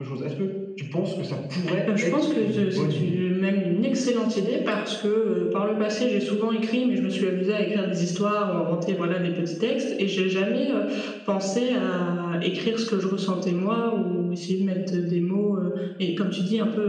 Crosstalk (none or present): present